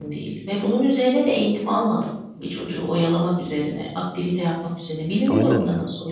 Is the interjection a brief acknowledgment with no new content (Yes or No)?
No